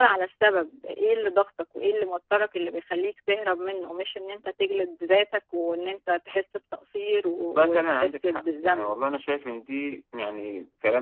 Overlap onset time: 7.5 s

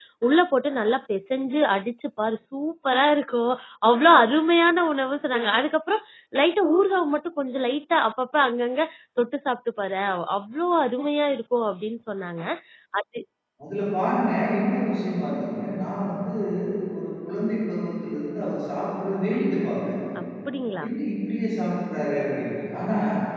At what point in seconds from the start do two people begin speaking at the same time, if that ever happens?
none

